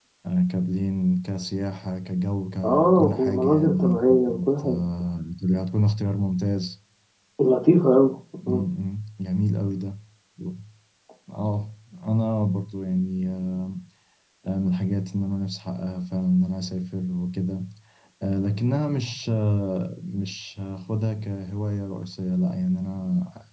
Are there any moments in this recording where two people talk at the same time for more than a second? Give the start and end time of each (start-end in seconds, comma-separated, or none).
2.6-4.8